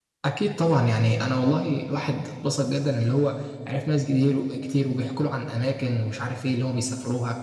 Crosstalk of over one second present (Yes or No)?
No